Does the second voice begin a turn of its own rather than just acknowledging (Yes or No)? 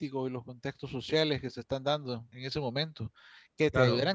No